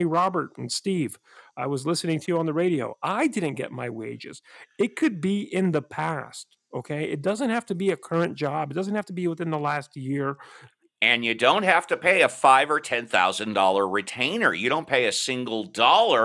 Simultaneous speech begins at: none

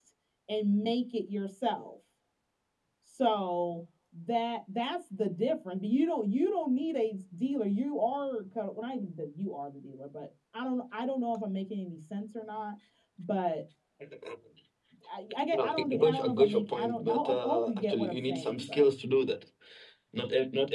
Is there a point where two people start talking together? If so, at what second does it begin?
15.5 s

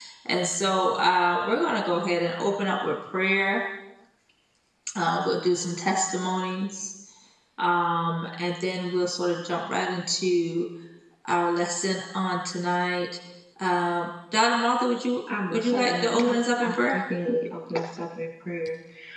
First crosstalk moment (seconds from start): 15.3 s

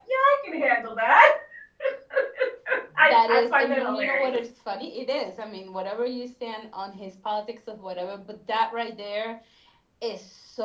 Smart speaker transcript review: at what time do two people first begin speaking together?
3.0 s

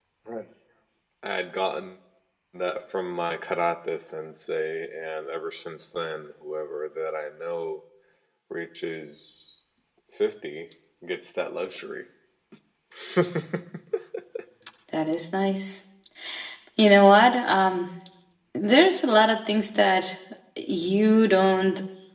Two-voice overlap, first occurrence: none

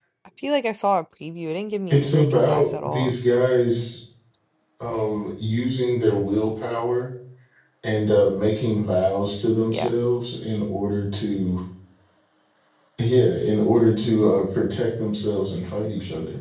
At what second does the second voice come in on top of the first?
1.9 s

